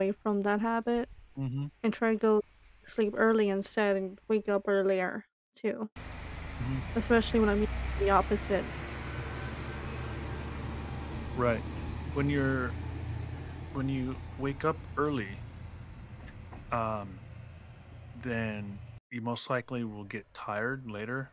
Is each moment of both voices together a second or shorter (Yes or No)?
Yes